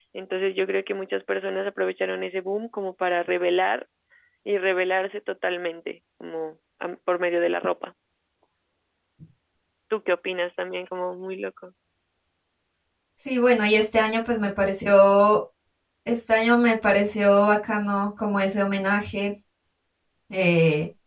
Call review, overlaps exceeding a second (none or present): none